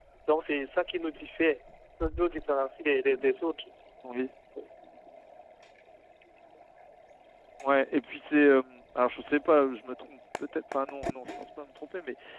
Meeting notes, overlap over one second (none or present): none